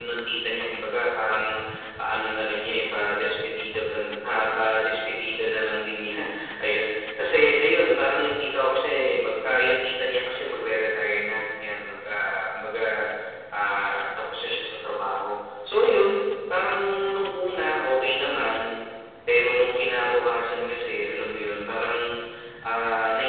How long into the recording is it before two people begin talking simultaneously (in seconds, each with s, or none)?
none